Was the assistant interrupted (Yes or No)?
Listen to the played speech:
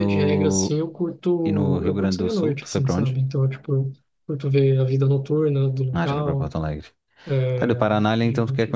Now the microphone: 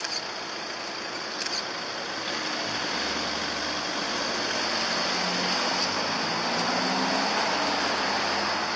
No